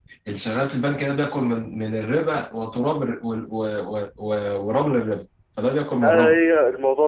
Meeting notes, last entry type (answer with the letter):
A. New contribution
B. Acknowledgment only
A